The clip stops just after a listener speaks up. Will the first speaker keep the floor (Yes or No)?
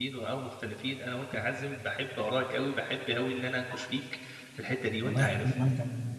No